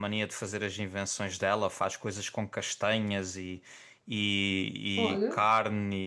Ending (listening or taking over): listening